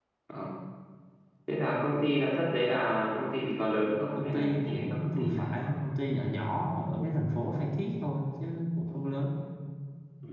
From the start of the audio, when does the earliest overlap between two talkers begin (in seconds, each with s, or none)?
4.2 s